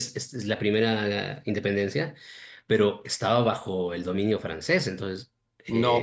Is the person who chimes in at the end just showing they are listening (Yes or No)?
No